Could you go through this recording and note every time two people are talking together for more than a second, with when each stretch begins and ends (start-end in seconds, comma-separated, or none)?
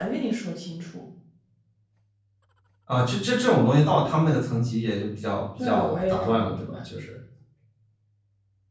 5.6-6.8